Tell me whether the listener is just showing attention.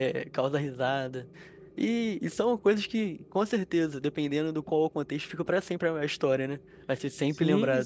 No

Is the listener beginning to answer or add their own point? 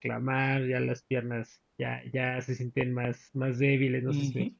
Yes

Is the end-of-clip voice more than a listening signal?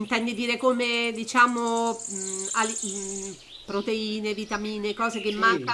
Yes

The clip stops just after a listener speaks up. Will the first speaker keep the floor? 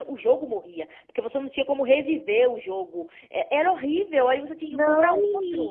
No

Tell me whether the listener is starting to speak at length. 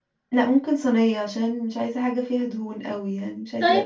Yes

